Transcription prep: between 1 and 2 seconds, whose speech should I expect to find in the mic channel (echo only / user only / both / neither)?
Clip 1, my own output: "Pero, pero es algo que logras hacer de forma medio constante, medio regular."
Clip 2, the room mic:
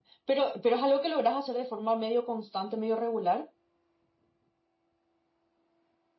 echo only